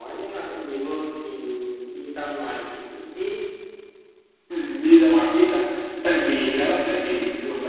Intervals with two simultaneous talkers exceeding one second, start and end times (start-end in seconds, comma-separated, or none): none